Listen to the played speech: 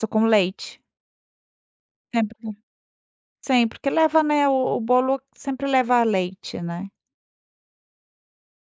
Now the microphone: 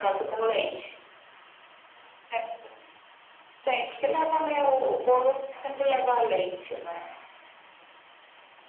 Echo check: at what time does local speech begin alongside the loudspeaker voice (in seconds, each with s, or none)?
none